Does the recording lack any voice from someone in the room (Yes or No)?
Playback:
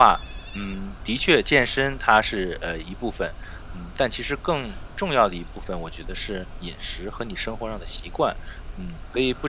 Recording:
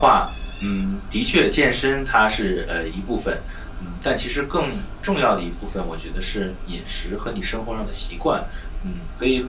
Yes